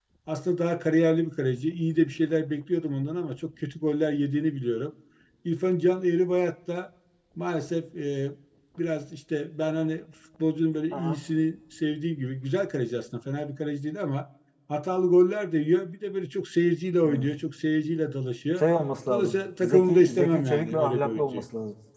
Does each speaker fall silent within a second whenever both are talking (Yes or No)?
No